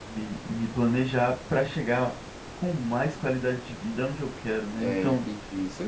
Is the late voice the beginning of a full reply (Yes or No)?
Yes